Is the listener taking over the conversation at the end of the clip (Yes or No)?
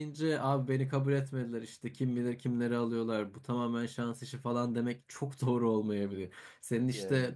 No